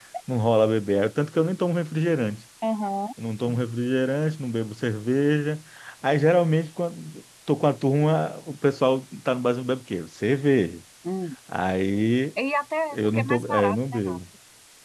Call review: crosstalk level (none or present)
present